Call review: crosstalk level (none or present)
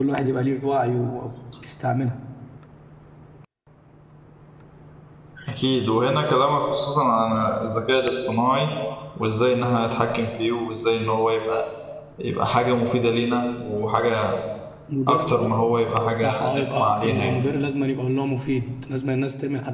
present